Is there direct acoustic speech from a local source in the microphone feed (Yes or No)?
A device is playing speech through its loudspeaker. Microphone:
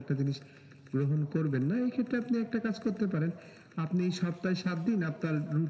No